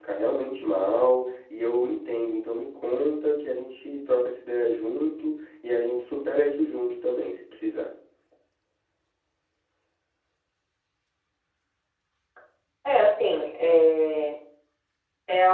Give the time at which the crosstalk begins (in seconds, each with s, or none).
none